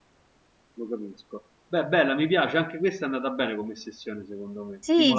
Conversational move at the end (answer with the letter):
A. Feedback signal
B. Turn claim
B